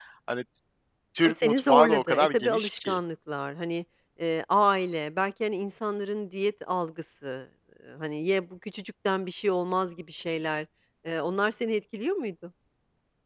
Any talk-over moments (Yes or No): Yes